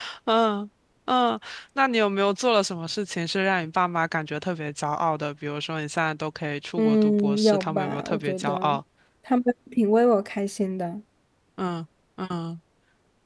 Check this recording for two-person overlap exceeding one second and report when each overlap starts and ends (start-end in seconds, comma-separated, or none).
6.8-8.8